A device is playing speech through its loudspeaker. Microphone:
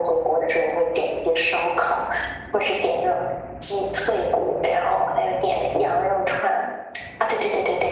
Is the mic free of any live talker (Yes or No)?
Yes